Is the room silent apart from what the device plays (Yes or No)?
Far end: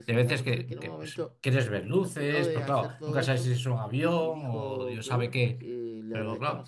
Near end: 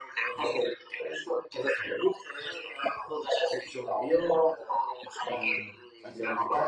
No